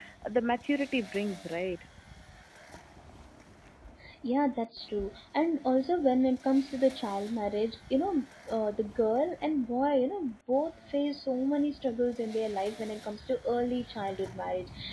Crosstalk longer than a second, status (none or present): none